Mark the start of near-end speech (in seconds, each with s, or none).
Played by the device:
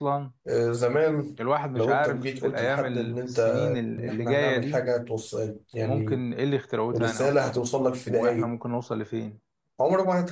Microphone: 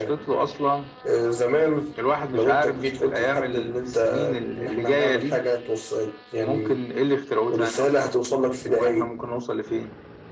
none